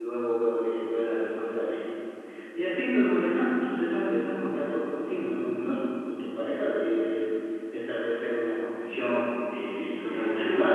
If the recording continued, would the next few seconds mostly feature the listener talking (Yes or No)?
Yes